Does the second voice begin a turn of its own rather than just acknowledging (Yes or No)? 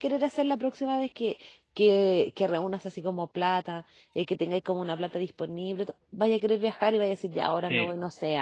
No